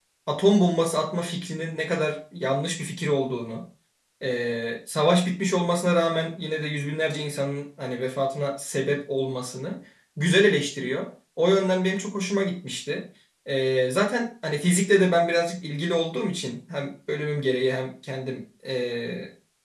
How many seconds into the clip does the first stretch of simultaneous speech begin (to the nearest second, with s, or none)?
none